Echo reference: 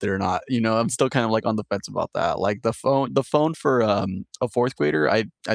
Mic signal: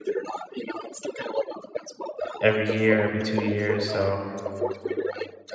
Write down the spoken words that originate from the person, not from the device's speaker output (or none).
every year, every 2 years," so